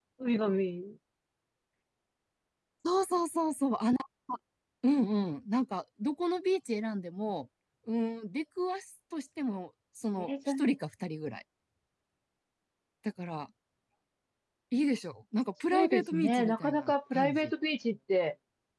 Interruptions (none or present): present